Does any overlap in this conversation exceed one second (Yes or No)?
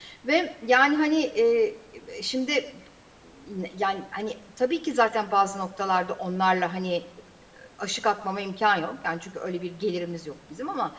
No